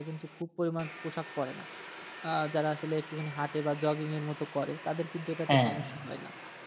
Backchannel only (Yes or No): Yes